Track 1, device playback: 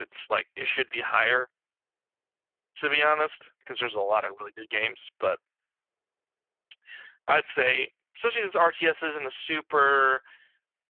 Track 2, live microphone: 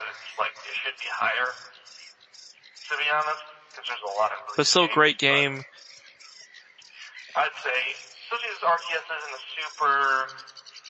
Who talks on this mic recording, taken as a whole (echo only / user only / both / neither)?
both